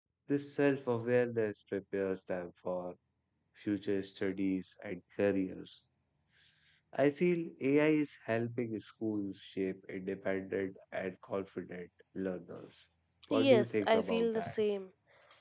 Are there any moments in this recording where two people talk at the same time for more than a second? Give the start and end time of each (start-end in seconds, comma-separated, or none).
13.3-14.5